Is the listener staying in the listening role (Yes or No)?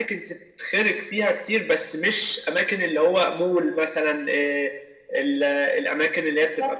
Yes